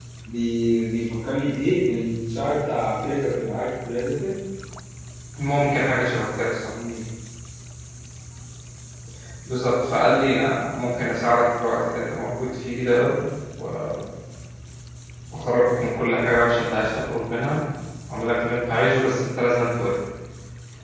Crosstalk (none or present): none